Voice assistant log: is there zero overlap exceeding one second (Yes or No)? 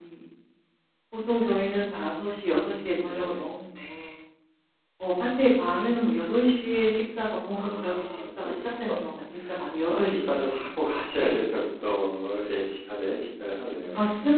No